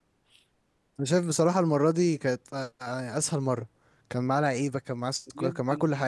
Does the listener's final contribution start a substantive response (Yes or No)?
Yes